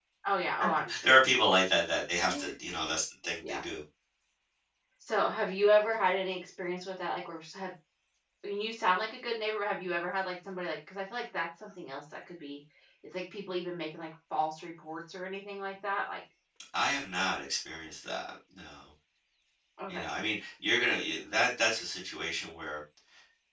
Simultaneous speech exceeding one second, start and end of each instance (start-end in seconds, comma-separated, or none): none